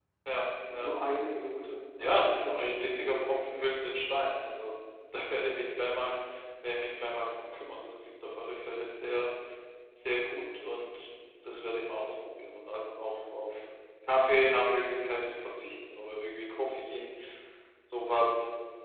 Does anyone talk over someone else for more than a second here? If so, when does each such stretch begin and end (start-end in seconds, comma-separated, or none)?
2.0-3.2